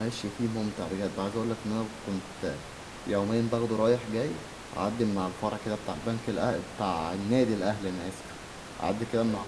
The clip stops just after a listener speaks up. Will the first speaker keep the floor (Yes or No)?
Yes